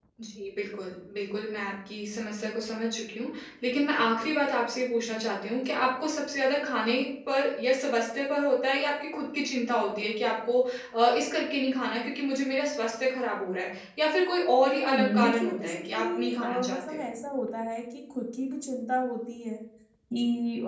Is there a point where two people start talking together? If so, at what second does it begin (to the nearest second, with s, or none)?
15 s